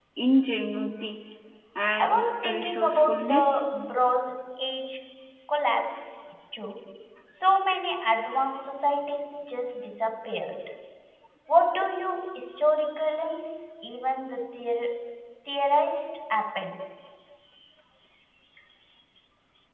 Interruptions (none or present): present